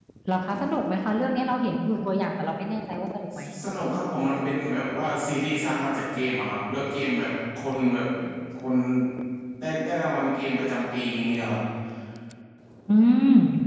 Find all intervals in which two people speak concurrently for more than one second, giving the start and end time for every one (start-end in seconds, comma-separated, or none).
none